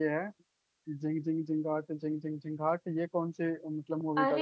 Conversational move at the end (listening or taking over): taking over